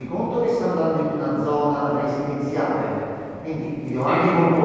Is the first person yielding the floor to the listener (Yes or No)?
No